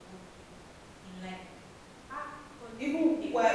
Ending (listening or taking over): taking over